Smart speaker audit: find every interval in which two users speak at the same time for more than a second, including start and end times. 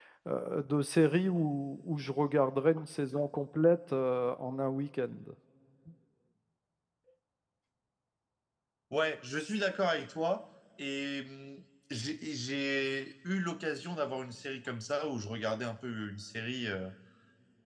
none

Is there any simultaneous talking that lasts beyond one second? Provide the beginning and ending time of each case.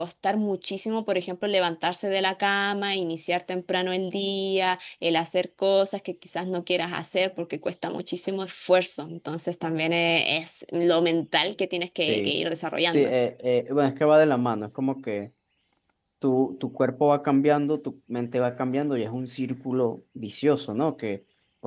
none

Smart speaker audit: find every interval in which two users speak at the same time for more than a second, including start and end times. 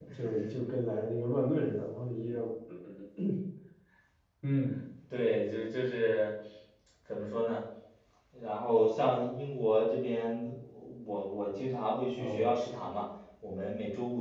none

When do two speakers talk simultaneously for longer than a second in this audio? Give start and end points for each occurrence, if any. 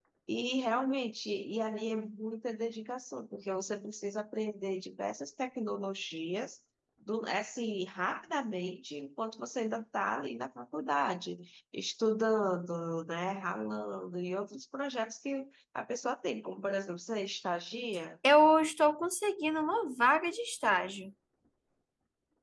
none

